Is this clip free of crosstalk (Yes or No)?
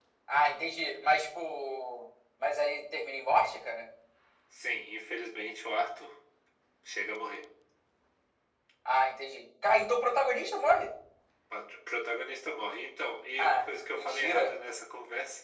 No